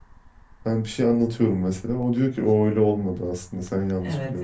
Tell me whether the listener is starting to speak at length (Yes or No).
Yes